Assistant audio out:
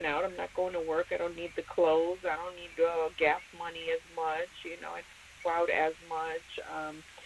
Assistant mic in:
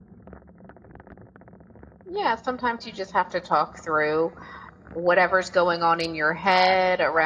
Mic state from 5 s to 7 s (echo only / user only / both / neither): user only